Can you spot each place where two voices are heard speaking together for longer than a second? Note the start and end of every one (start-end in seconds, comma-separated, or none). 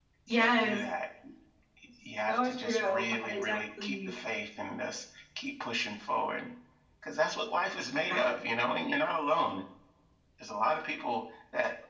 2.3-4.1